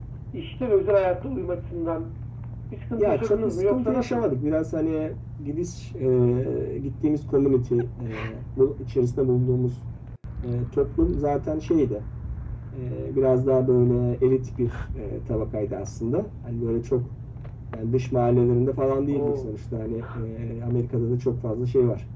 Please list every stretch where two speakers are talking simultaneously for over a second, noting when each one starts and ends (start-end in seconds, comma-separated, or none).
3.0-4.4